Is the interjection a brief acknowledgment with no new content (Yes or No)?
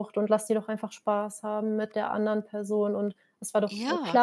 Yes